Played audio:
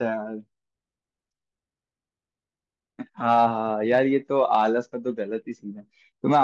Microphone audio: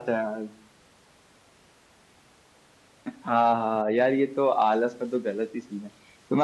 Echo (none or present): present